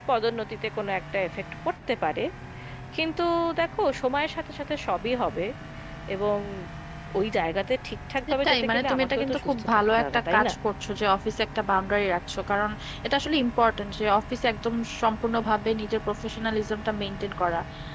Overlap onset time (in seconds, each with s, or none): 8.4 s